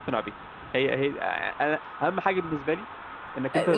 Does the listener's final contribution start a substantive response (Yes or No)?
Yes